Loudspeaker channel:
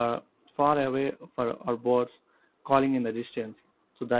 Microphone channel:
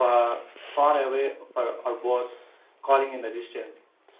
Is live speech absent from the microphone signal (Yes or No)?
Yes